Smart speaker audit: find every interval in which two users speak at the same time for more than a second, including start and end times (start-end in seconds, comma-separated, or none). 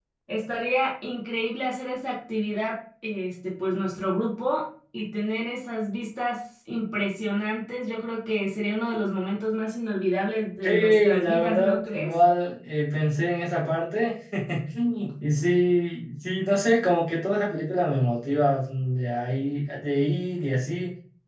10.6-12.1